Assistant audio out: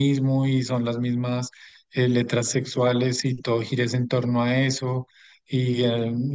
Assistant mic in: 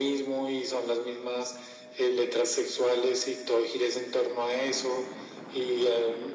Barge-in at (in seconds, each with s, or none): none